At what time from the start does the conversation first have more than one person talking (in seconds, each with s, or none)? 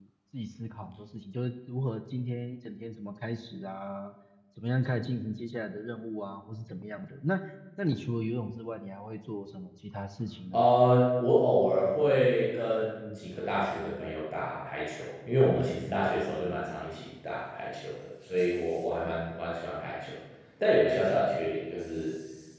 none